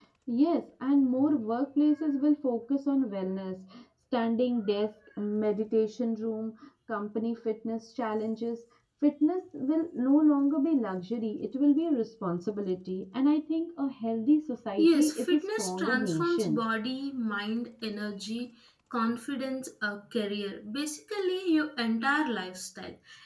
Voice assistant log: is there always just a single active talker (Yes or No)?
No